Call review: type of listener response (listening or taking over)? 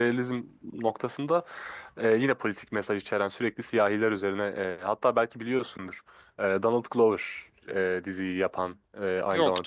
listening